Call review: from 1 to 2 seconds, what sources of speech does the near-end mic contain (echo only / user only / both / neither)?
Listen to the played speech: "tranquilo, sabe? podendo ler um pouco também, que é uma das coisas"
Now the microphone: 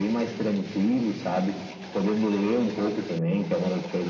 echo only